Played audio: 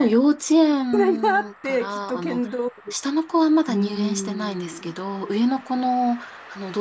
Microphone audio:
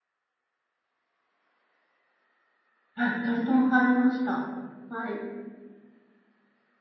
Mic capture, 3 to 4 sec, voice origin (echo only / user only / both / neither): user only